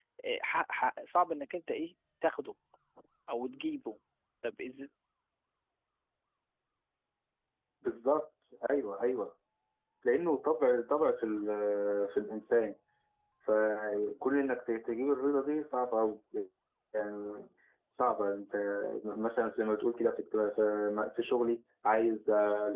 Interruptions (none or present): none